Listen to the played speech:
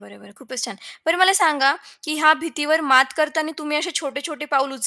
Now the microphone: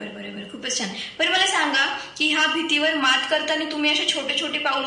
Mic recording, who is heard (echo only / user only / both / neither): echo only